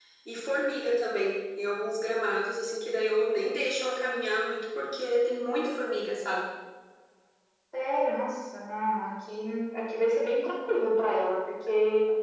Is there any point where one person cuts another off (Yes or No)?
No